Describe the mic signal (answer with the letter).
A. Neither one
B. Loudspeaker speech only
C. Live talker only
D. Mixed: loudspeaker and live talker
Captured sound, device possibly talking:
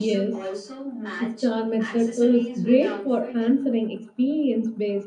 D